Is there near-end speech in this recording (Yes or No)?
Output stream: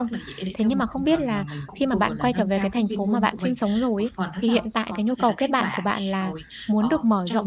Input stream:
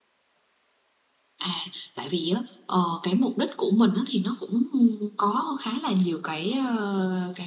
Yes